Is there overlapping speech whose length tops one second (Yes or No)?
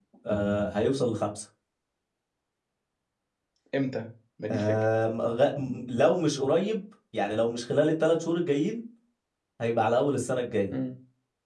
No